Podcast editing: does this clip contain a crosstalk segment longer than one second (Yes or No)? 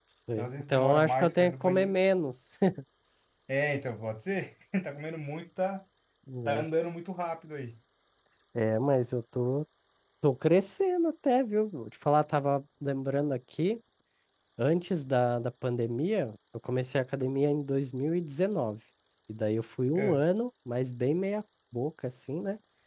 Yes